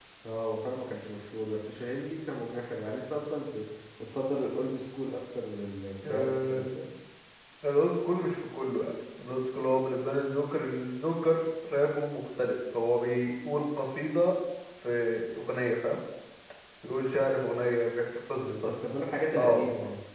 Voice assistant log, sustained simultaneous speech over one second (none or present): none